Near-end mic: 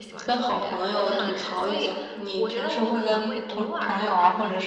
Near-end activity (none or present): present